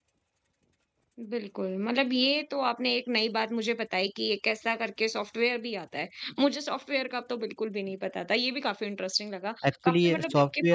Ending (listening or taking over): taking over